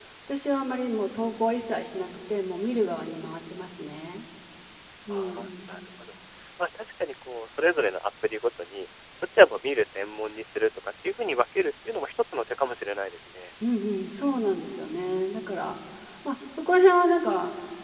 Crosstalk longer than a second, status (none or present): none